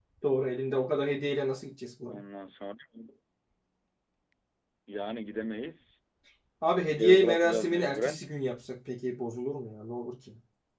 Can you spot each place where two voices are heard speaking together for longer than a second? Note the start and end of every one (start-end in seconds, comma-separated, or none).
7.0-8.2